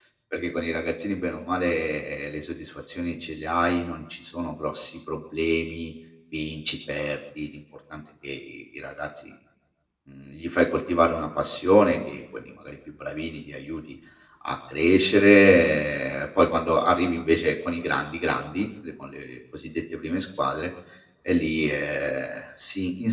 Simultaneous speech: No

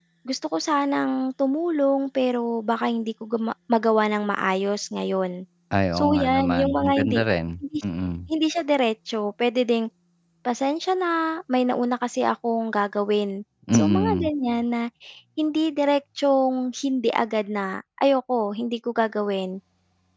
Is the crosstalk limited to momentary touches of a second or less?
No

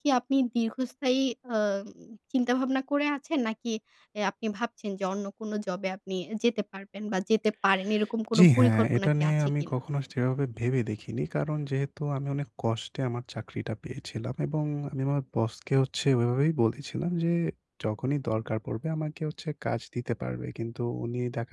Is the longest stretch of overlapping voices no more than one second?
No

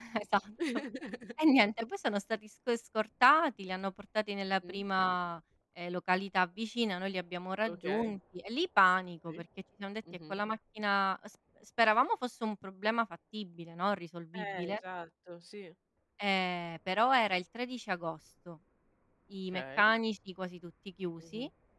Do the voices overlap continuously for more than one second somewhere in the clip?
No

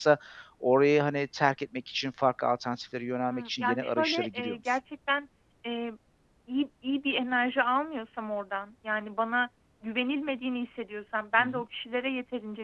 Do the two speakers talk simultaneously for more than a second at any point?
Yes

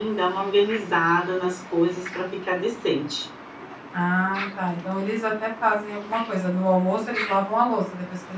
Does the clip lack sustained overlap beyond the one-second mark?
Yes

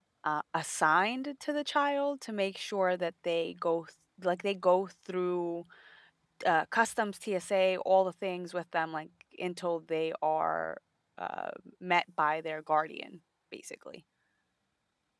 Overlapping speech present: No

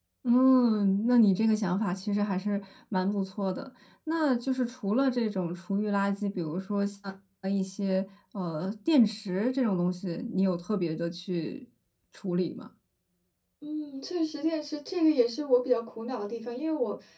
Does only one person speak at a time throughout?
Yes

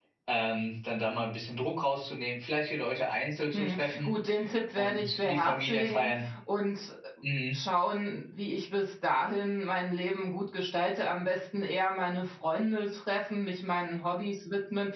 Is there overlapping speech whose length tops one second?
Yes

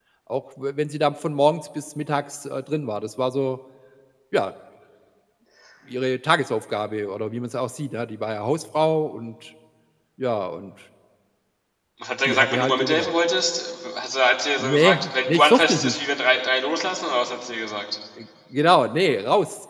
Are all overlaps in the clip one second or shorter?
No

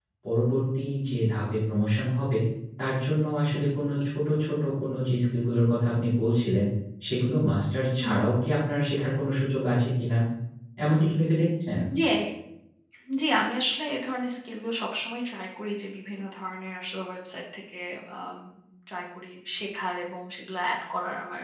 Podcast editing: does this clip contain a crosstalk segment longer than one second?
No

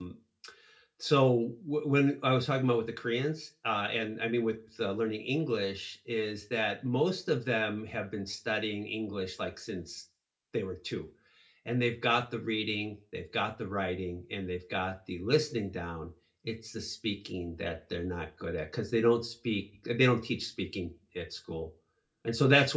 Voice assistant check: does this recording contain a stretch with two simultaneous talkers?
No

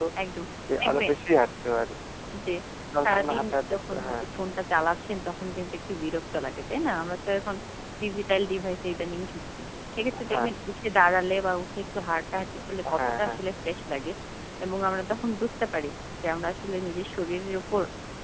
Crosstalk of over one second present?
Yes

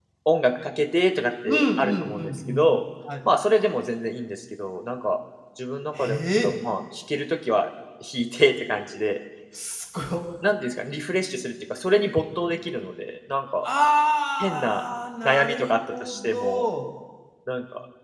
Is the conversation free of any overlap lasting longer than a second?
No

